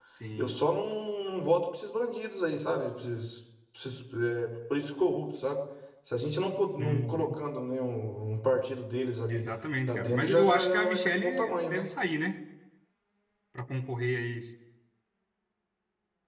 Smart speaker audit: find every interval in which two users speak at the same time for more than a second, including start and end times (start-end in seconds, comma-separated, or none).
9.9-11.8